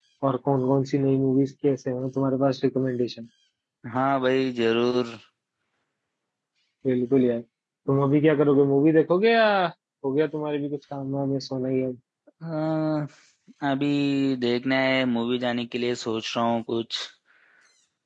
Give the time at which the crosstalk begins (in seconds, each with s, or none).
none